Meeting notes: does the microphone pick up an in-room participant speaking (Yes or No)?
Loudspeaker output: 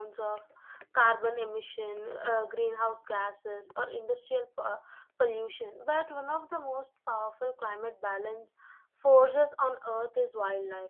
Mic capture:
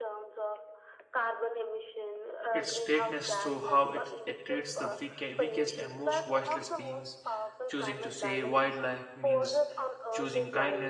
Yes